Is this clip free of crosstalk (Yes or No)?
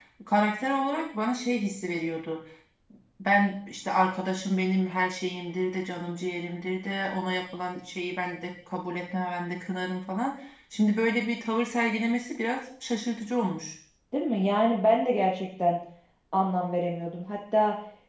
Yes